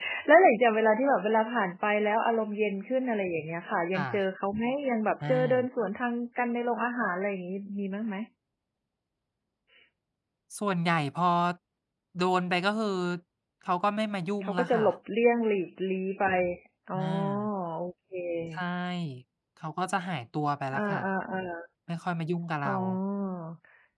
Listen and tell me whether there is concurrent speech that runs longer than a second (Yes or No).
No